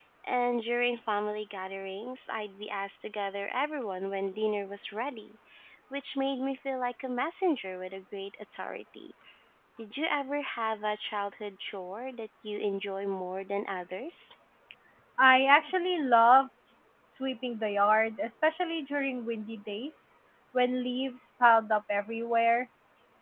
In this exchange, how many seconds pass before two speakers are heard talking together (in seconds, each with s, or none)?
none